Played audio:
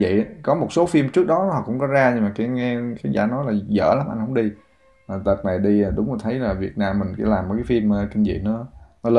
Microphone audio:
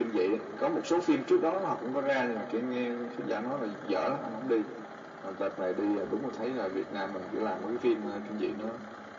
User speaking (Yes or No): No